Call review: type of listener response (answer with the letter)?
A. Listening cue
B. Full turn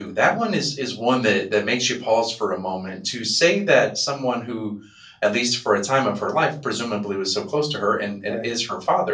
A